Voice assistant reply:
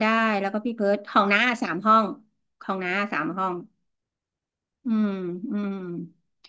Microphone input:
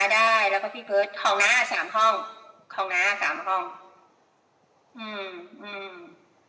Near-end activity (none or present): none